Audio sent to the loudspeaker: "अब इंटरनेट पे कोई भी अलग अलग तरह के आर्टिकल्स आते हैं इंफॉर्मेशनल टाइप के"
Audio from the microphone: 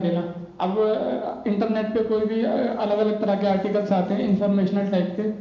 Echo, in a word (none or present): present